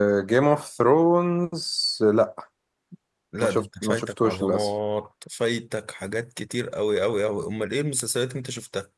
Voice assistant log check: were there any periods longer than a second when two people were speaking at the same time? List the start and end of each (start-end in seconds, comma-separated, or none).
3.4-4.7